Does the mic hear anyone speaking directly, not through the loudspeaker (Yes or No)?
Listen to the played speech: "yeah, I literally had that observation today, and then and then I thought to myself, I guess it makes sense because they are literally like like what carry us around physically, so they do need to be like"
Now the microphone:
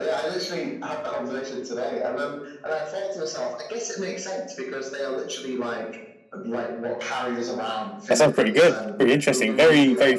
Yes